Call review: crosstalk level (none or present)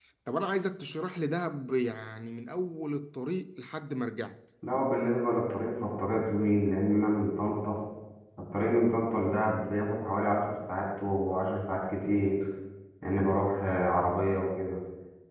none